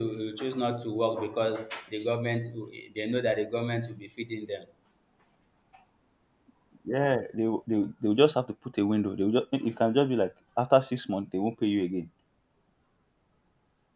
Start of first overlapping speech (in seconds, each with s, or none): none